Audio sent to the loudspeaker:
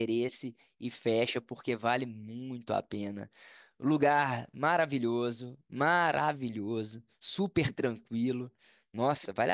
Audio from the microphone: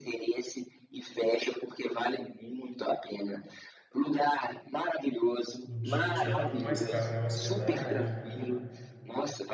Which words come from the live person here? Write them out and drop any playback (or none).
o dia a dia lá fica mais caro, né? Hospedagem, tudo.